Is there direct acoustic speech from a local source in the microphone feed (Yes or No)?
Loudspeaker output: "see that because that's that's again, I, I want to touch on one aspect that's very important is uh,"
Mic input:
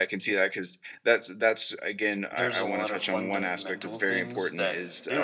Yes